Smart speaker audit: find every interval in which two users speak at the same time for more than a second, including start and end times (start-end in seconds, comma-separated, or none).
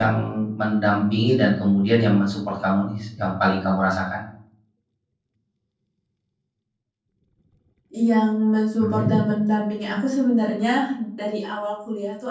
none